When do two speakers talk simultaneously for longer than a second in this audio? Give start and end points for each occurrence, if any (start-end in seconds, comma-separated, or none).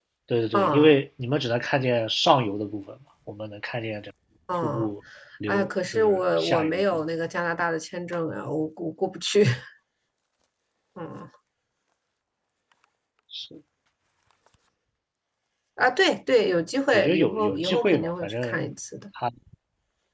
5.5-7.1, 16.9-18.6